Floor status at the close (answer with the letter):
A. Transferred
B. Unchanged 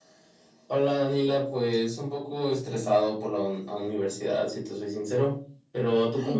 A